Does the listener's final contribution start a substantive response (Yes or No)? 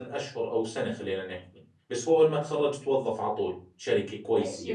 Yes